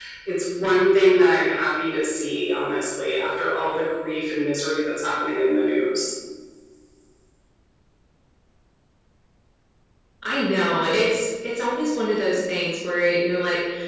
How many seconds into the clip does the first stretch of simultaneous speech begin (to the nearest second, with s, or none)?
none